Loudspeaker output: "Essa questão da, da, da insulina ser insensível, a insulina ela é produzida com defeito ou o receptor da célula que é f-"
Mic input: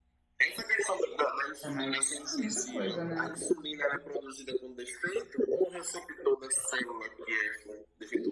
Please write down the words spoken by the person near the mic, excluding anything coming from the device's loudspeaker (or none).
tá mais, ah, muita coisa, né? Não